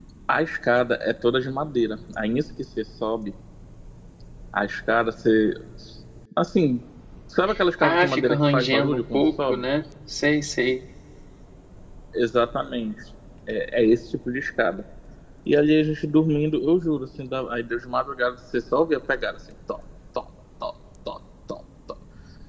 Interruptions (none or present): present